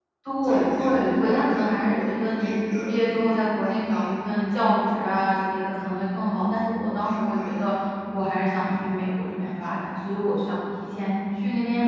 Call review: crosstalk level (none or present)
present